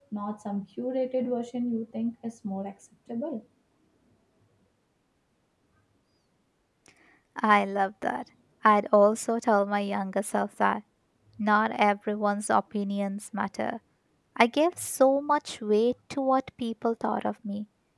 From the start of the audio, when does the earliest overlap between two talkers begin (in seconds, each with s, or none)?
none